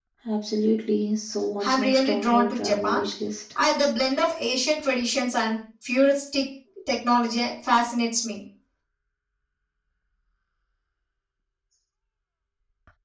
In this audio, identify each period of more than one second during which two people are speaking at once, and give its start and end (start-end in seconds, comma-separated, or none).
1.6-3.1